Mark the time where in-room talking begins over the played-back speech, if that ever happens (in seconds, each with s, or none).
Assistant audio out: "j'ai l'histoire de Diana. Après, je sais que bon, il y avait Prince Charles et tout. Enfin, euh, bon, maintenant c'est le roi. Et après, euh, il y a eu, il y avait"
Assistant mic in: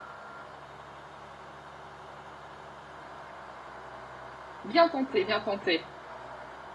4.7 s